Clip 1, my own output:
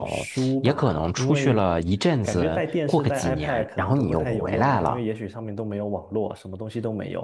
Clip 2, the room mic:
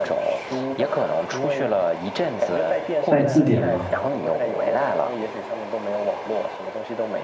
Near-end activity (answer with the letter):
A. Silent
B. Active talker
B